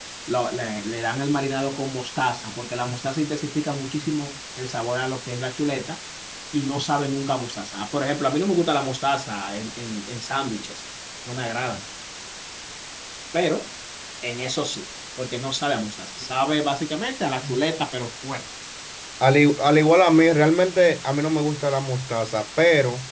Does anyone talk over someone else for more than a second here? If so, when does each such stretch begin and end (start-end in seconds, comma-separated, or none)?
none